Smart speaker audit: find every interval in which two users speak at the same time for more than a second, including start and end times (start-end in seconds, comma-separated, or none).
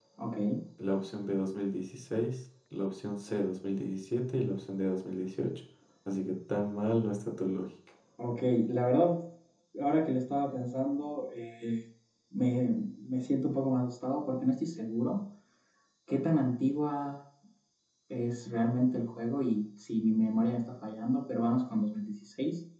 none